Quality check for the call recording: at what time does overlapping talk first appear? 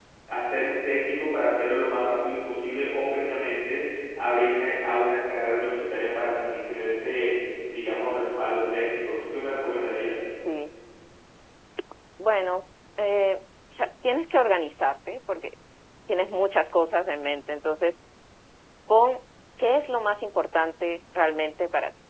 none

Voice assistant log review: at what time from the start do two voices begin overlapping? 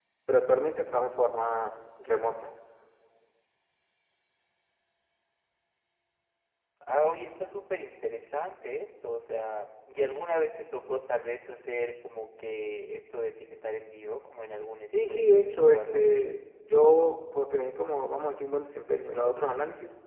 14.9 s

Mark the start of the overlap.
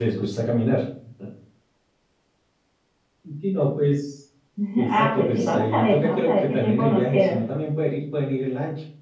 4.9 s

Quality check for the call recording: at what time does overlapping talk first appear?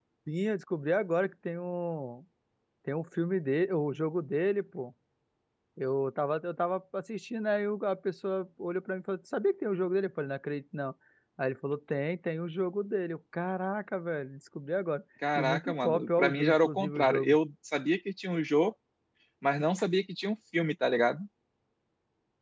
15.2 s

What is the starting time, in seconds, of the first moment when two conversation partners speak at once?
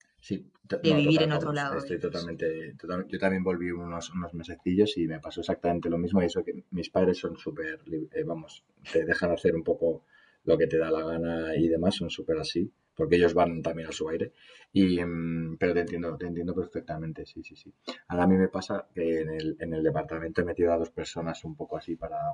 0.8 s

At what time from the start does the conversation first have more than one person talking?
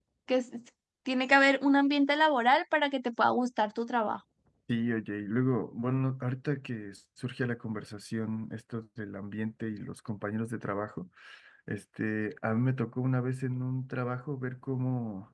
none

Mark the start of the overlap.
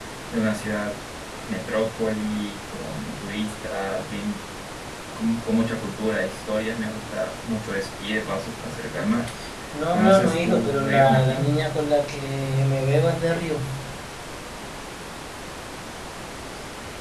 9.9 s

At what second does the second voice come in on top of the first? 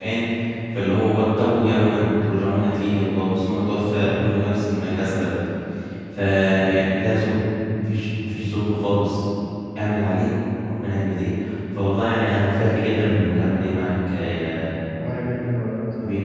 3.8 s

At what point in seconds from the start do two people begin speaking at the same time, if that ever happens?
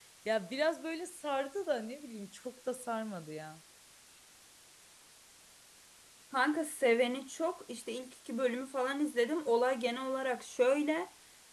none

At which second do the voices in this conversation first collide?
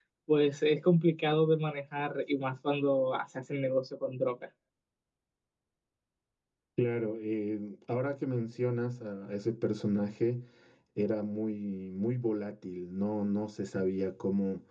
none

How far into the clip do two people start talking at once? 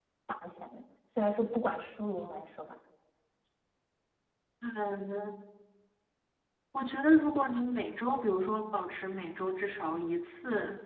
none

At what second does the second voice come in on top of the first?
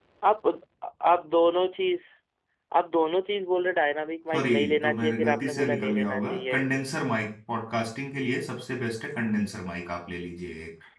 4.3 s

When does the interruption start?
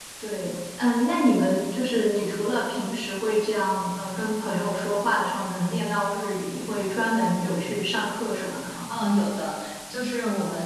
none

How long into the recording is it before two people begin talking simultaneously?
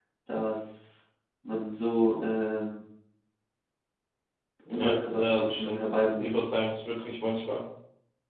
4.7 s

